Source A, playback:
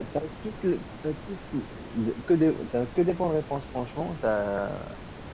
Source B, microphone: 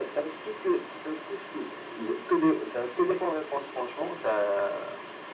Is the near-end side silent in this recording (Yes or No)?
Yes